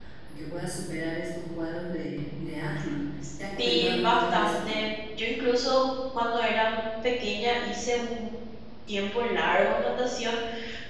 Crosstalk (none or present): present